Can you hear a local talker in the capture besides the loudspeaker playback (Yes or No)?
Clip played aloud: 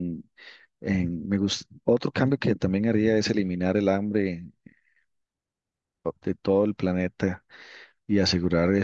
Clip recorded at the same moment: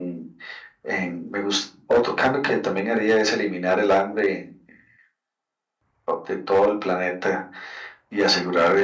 No